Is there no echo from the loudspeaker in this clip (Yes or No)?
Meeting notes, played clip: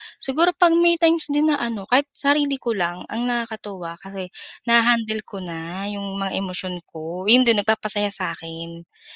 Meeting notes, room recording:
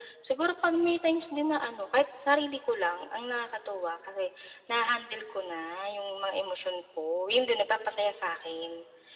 No